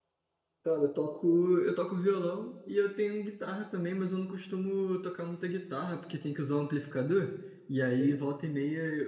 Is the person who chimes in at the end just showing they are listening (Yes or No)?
Yes